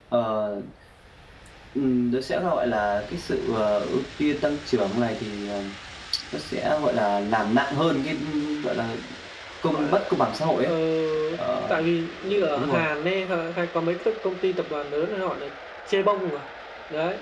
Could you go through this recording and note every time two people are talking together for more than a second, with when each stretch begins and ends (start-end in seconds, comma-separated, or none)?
none